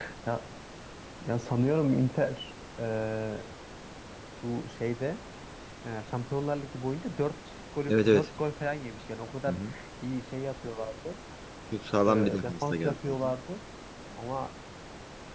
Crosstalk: present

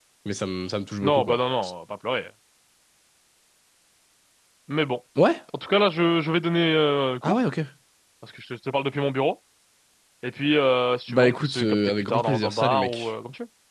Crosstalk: present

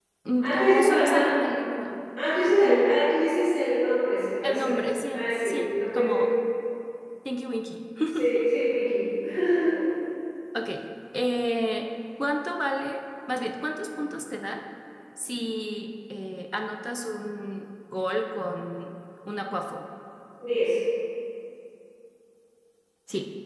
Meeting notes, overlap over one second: present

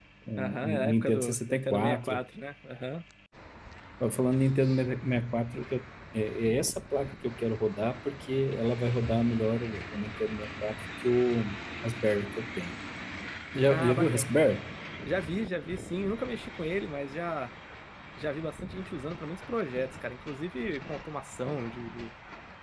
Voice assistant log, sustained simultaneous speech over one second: present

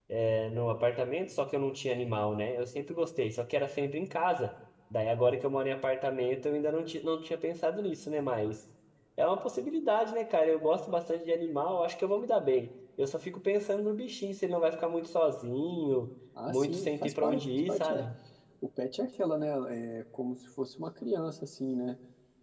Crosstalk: present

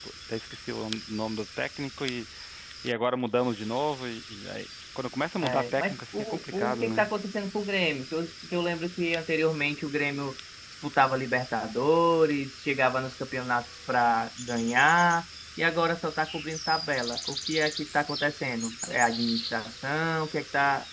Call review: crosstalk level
present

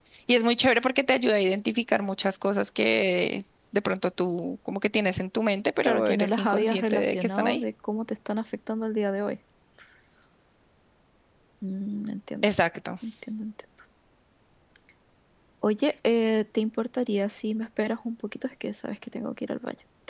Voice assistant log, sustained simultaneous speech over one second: present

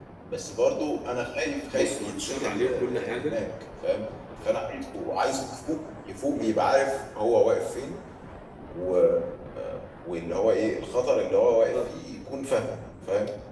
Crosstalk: present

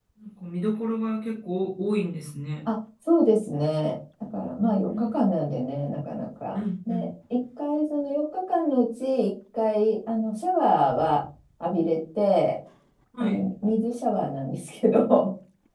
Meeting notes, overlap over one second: none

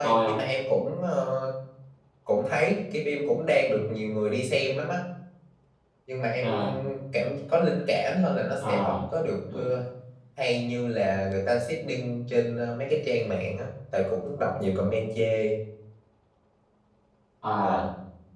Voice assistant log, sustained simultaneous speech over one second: none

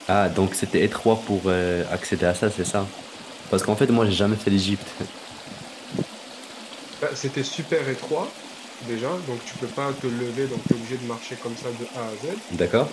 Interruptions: none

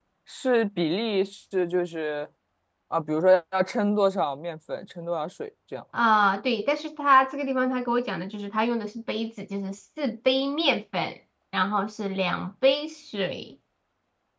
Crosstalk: none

